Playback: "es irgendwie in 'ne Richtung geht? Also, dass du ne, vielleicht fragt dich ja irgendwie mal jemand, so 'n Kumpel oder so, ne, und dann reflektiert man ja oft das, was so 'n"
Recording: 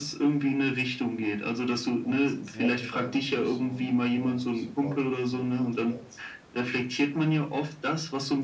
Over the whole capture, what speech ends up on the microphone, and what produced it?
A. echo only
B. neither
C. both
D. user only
C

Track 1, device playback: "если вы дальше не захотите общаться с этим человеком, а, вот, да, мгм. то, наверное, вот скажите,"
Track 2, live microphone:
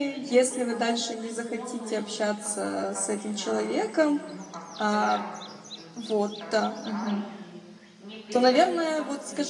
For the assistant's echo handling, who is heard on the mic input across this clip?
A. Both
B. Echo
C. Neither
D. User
A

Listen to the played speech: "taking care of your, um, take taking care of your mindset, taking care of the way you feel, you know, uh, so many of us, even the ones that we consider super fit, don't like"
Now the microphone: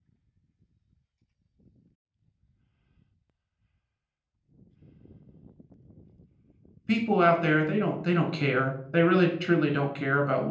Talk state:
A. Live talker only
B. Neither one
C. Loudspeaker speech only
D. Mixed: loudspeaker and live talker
A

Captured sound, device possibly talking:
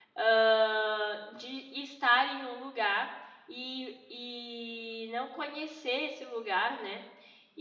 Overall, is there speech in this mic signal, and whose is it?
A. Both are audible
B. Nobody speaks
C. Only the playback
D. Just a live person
D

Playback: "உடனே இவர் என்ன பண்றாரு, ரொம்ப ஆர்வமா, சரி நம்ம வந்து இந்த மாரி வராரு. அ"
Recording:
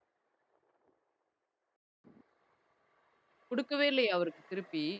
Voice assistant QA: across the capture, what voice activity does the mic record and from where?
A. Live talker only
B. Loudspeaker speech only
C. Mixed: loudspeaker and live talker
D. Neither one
A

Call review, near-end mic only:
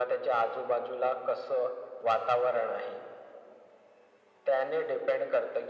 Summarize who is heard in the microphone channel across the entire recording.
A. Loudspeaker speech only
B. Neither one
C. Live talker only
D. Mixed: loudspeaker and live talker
A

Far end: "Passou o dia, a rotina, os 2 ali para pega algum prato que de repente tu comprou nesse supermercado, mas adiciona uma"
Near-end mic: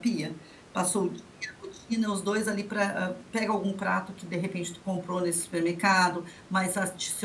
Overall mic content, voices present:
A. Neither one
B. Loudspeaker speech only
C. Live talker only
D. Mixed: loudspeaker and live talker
B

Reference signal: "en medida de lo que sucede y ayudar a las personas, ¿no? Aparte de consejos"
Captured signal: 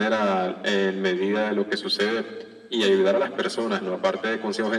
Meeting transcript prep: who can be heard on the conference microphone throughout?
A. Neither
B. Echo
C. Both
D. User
B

